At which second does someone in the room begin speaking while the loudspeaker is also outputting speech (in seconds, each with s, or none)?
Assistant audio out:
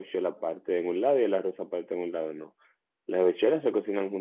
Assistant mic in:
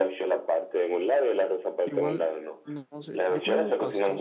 1.8 s